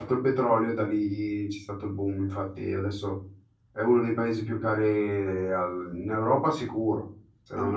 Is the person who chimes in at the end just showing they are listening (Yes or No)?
No